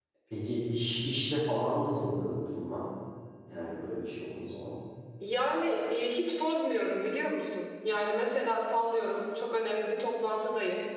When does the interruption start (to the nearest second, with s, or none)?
none